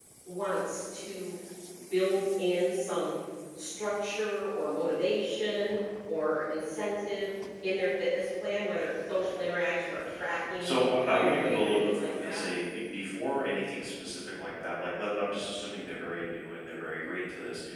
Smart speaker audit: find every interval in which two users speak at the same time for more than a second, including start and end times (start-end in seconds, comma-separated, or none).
10.6-12.4